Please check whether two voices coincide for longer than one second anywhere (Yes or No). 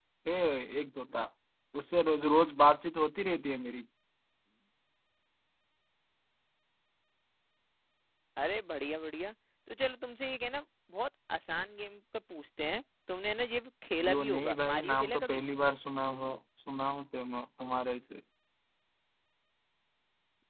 Yes